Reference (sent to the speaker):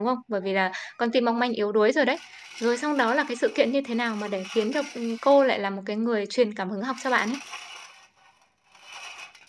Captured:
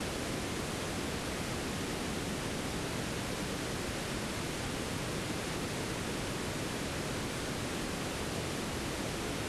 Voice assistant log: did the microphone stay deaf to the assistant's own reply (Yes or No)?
Yes